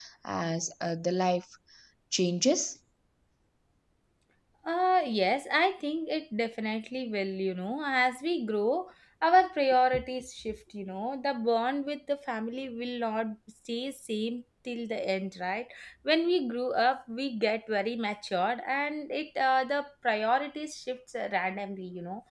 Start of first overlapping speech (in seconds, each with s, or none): none